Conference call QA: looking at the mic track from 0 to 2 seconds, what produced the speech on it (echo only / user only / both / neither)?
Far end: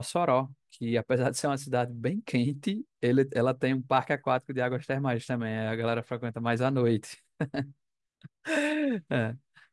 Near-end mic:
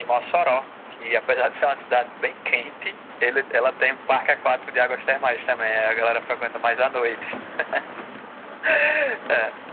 echo only